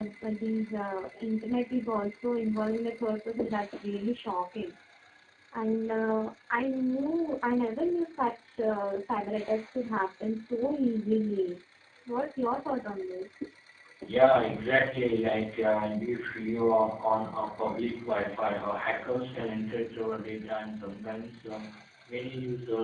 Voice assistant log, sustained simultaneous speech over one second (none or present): none